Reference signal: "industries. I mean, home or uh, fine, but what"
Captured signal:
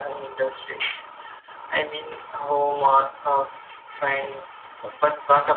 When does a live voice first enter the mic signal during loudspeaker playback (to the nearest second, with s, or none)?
none